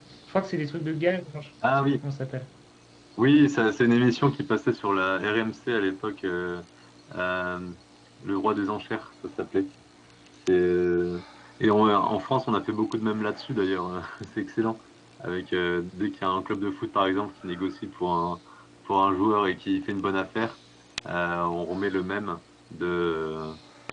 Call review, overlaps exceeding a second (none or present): none